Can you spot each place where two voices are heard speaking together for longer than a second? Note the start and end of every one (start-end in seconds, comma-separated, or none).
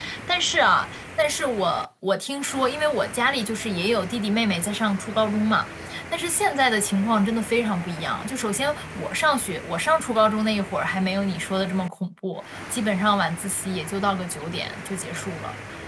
none